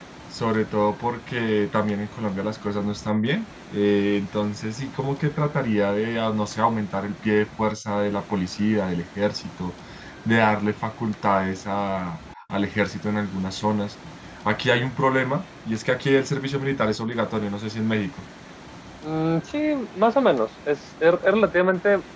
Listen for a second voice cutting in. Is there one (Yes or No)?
No